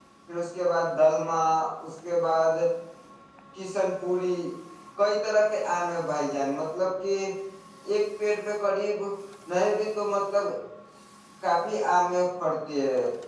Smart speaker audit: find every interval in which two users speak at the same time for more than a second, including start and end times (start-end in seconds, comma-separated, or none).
none